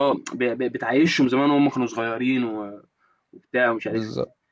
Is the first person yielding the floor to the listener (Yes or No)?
No